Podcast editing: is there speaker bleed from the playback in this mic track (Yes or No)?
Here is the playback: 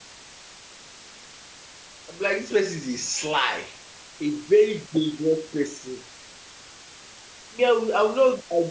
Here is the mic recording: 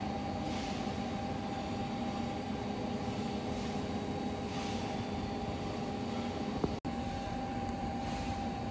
No